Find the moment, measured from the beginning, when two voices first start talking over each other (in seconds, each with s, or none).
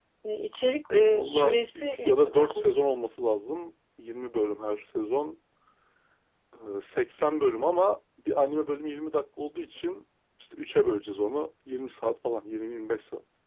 1.1 s